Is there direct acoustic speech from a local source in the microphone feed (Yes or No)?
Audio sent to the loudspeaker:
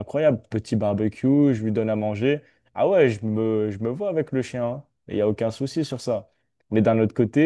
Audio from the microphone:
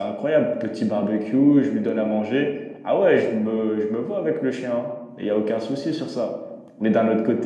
No